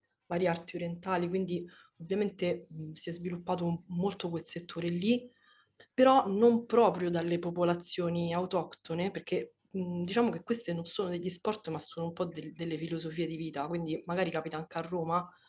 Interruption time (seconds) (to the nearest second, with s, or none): none